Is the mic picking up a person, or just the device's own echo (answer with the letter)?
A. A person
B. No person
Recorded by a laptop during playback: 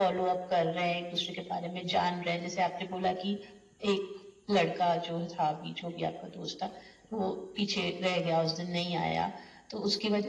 B